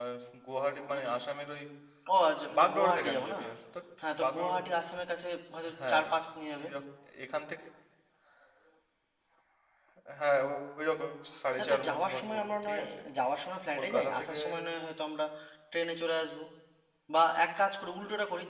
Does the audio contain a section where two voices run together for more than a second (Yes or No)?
Yes